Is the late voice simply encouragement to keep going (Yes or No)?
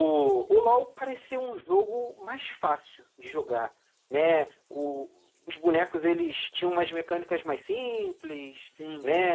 Yes